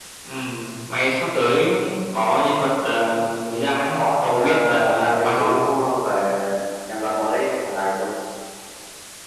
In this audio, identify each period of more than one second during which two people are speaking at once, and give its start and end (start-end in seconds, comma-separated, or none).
3.9-5.6